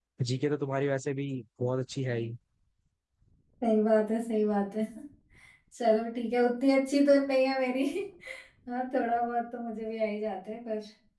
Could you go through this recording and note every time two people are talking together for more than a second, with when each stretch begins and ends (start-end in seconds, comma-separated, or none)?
none